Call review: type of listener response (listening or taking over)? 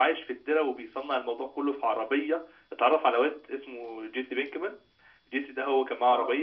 listening